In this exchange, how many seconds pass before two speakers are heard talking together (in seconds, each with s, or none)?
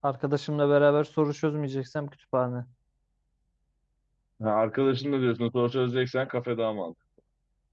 none